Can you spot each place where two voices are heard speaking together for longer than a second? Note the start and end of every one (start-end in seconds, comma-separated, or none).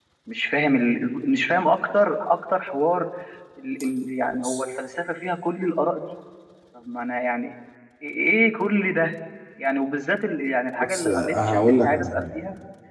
10.8-12.2